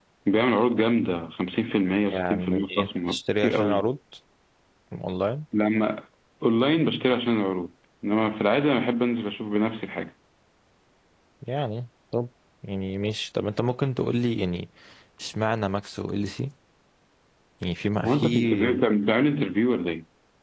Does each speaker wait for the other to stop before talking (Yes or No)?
No